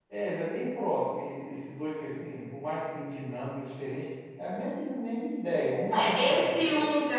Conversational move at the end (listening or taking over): taking over